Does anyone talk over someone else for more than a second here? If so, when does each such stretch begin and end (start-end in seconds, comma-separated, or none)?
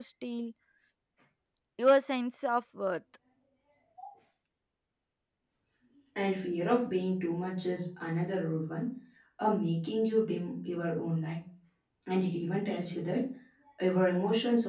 none